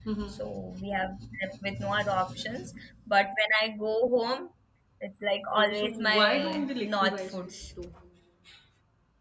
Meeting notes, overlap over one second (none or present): present